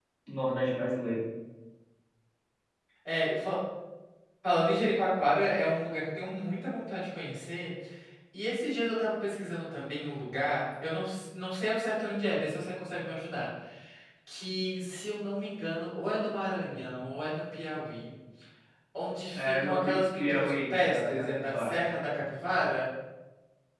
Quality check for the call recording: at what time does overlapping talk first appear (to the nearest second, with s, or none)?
19 s